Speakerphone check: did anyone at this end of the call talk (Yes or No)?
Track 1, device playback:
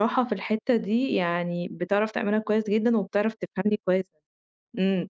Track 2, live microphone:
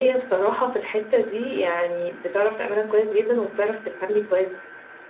No